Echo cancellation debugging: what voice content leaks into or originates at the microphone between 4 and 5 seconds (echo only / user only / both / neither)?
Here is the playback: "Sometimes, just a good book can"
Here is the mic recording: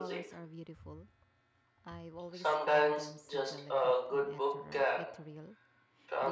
both